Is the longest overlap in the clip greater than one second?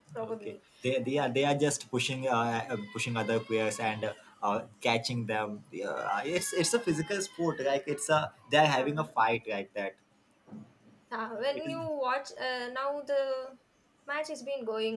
No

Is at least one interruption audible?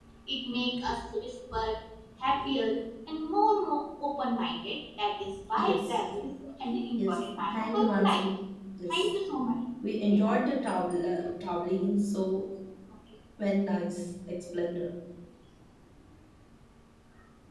Yes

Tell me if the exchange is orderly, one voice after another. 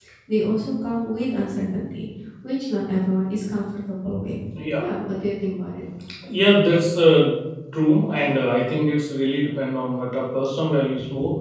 Yes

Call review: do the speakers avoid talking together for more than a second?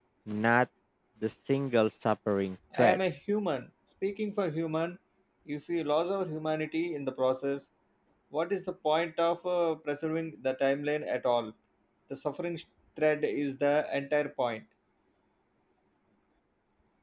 Yes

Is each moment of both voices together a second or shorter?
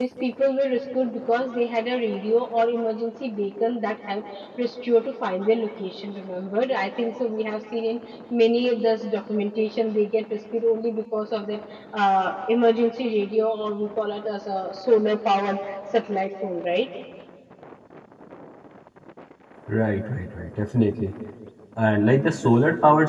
Yes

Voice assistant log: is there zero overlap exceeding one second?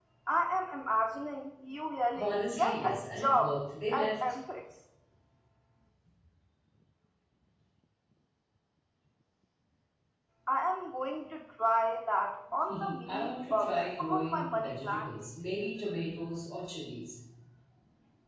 No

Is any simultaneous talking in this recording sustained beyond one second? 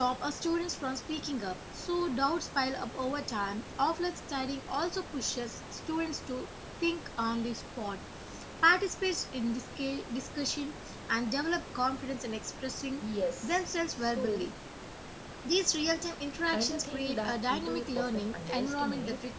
Yes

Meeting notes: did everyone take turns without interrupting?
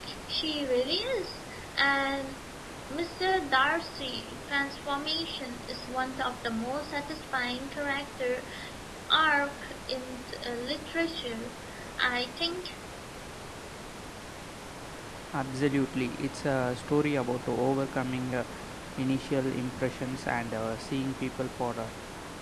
Yes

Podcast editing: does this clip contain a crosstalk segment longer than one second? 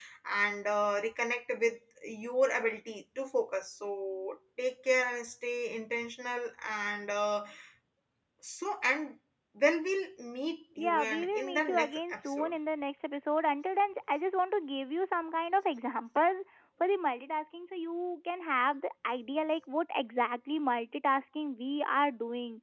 Yes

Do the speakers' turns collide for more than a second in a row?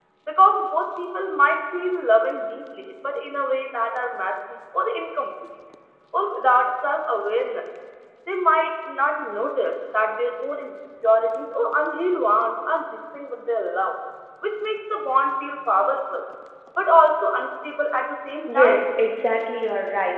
No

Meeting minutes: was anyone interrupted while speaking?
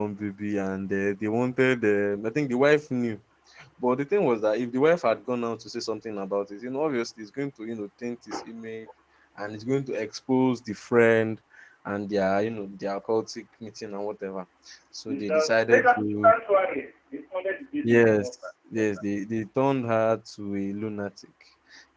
Yes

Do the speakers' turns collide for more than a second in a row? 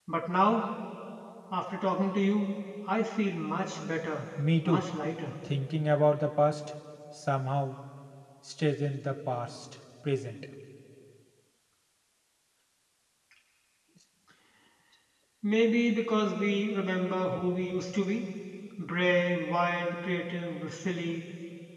No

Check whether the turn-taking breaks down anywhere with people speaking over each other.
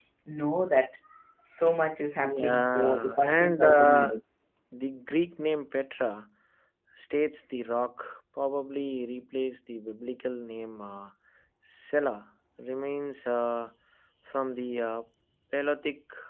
Yes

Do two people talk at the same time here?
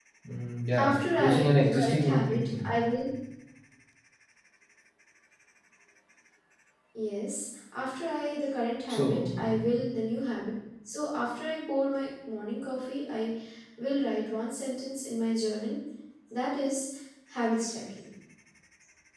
Yes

